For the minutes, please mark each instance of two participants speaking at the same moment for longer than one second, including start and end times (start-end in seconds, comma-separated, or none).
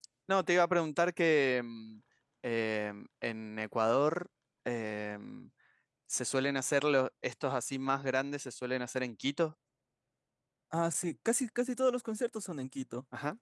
none